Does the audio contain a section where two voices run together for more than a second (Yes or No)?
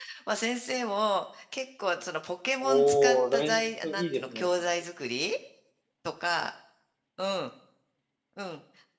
Yes